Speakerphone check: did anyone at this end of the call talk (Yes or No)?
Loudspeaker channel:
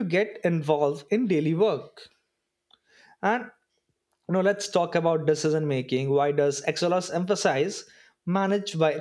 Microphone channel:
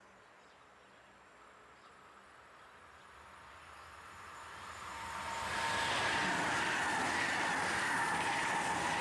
No